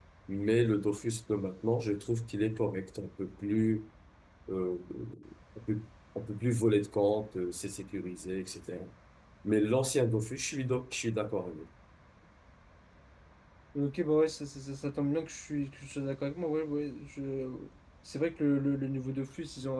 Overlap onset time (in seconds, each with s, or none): none